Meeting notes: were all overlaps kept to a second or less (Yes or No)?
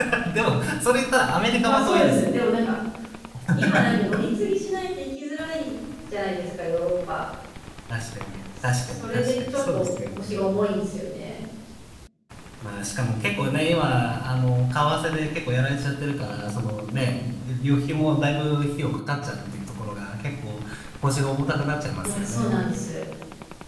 No